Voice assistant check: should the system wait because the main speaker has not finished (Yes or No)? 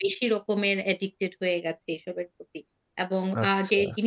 Yes